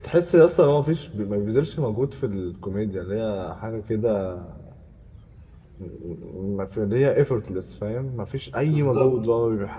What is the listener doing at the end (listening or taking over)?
listening